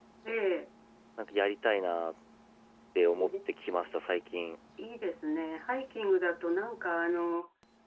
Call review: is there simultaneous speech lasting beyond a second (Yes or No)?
No